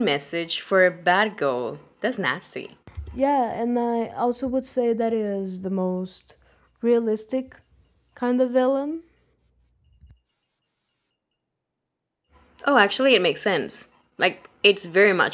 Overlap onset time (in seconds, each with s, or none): none